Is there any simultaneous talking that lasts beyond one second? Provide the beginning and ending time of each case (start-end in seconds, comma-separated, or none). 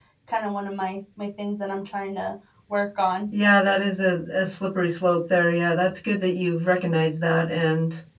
none